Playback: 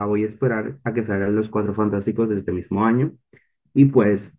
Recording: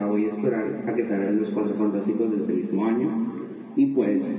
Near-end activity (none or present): none